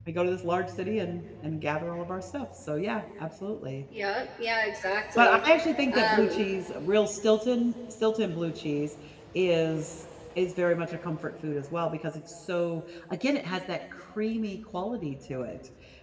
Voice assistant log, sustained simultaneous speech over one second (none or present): none